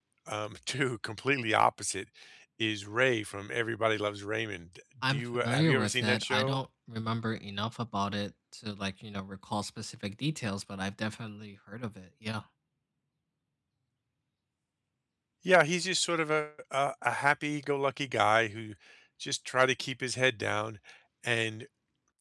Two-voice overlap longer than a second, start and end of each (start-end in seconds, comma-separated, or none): 5.1-6.6